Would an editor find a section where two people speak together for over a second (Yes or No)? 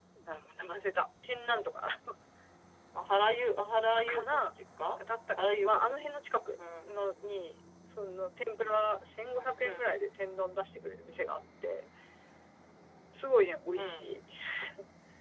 No